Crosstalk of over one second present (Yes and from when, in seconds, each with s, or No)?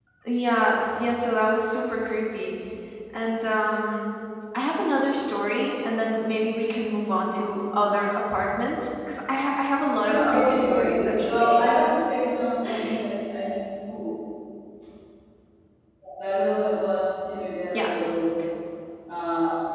Yes, from 10.0 s